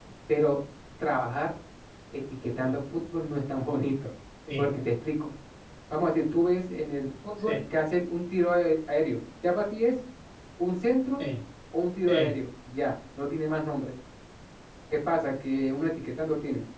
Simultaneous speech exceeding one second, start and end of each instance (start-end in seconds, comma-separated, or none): none